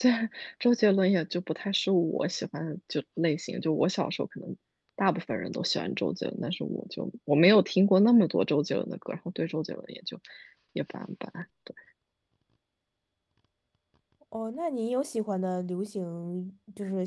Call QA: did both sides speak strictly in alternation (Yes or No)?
Yes